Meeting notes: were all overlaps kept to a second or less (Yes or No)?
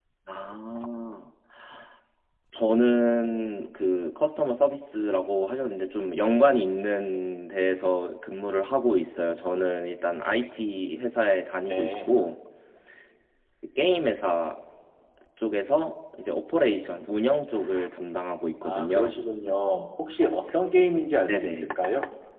Yes